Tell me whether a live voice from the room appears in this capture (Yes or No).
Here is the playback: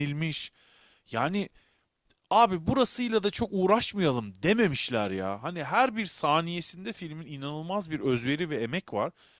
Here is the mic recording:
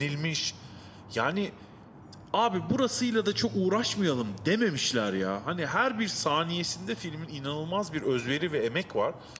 No